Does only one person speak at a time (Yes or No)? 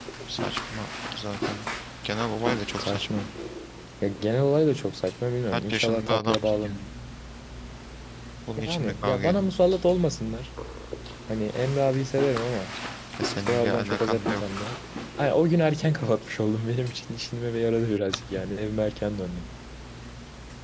No